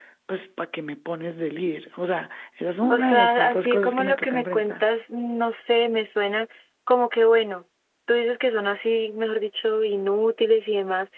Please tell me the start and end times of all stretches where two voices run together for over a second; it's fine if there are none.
2.9-4.8

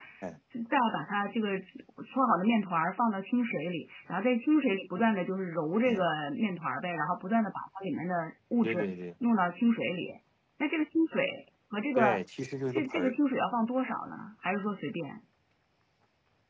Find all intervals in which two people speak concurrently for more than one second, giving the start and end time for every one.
none

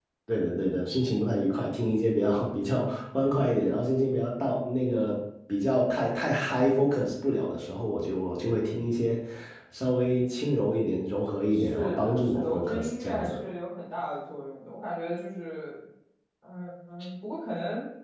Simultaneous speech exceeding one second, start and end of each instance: 11.5-13.4

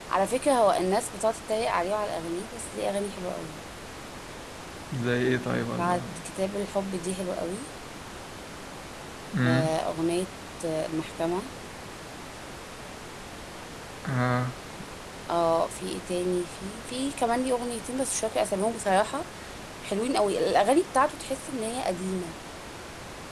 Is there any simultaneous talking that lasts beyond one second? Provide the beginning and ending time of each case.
none

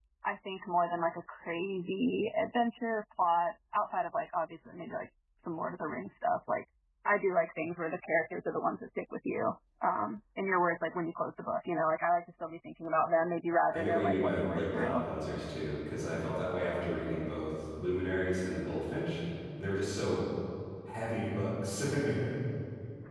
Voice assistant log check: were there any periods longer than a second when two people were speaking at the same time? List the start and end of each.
13.7-15.0

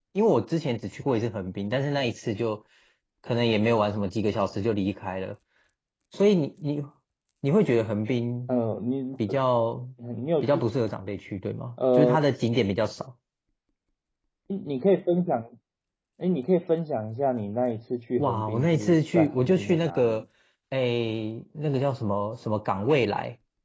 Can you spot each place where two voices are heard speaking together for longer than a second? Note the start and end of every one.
18.2-20.2

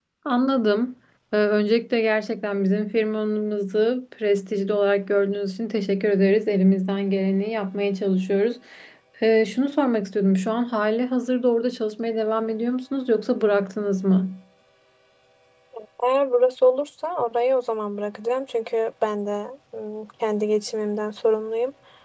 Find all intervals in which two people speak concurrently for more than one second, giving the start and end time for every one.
none

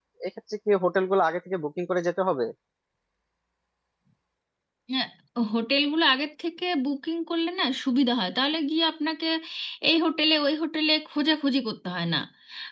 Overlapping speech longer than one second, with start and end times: none

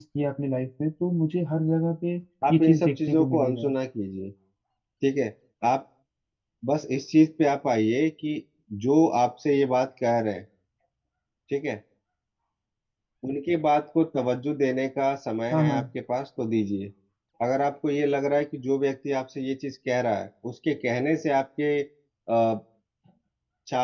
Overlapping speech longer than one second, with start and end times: 2.5-3.7

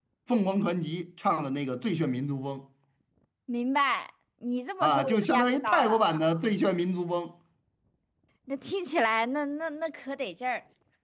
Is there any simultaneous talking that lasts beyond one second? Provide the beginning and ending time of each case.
4.8-6.0

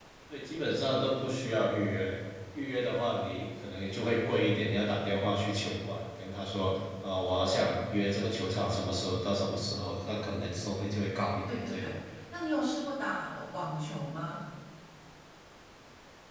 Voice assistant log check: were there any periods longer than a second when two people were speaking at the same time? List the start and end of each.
none

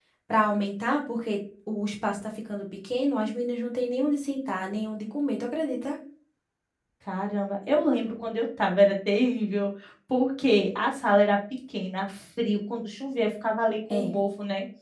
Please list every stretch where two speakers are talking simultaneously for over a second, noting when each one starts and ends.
none

